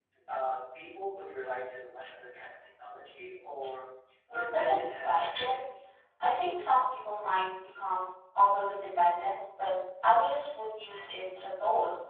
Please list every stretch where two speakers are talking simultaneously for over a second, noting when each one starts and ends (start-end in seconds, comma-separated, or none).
4.3-5.6